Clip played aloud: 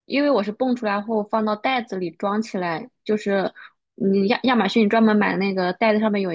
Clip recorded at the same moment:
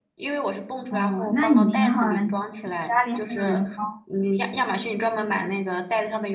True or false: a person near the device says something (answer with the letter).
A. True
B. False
A